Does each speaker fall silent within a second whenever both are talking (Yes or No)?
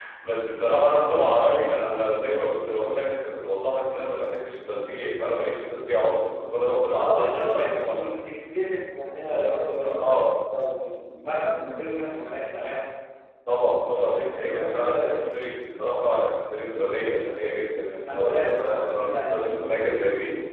No